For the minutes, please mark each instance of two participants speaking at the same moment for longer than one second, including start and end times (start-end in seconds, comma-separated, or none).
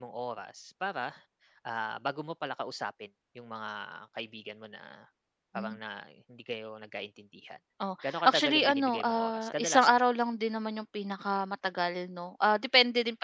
8.0-9.9